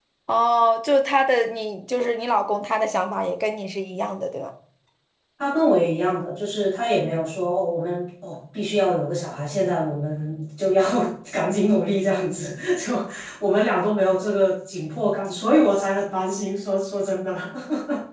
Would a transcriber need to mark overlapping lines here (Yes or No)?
No